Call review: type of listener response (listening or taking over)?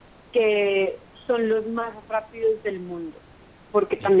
listening